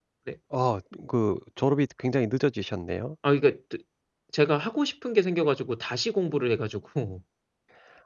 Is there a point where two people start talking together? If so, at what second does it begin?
none

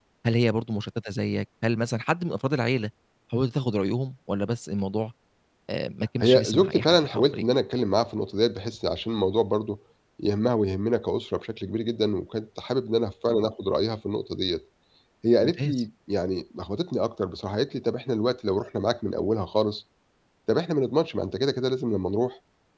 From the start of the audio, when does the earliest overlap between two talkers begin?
6.2 s

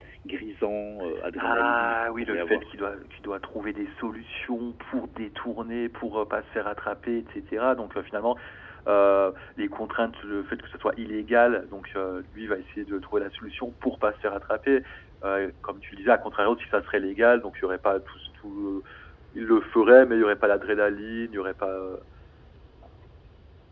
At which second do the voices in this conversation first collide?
1.4 s

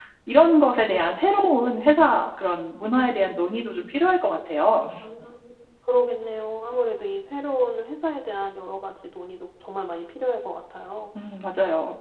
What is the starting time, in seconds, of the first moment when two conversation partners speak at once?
none

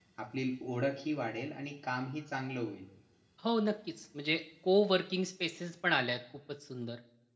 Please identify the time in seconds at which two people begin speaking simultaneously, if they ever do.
none

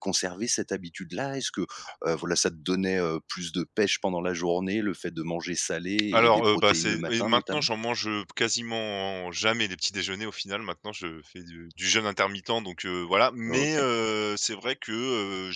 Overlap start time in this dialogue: 6.1 s

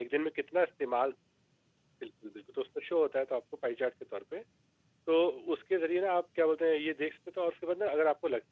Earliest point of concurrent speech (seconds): none

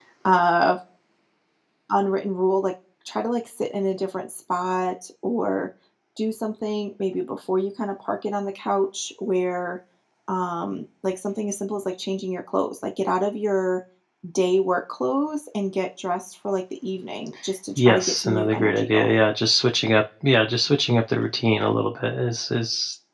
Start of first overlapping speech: 17.8 s

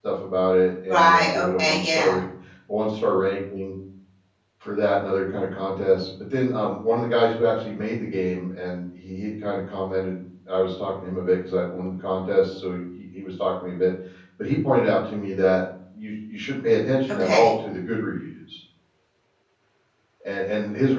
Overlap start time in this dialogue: 0.9 s

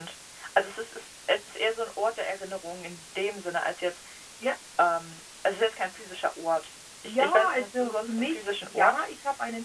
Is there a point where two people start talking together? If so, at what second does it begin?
7.0 s

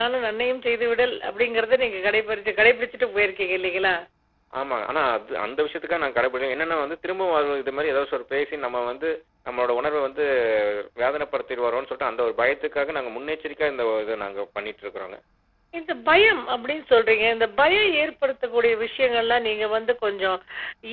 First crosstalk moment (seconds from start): none

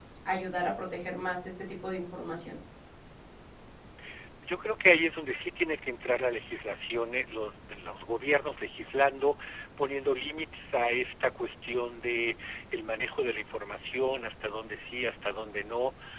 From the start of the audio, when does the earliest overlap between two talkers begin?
none

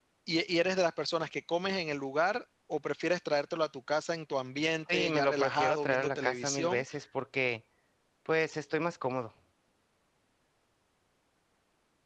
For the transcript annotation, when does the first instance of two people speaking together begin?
4.9 s

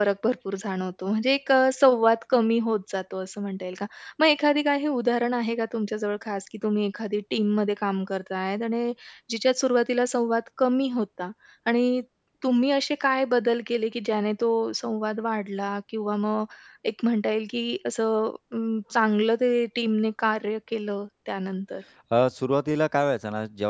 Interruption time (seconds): none

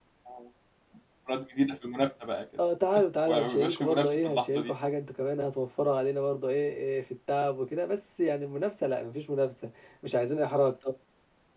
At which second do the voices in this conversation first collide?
3.3 s

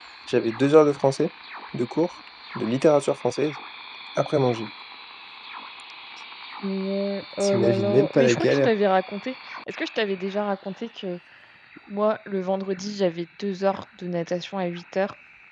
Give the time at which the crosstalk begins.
7.4 s

